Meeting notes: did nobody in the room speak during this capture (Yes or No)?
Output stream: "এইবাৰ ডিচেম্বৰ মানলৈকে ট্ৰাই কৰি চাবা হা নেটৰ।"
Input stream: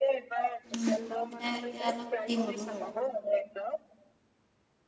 No